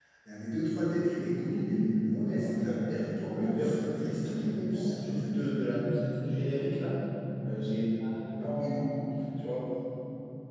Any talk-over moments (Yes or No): Yes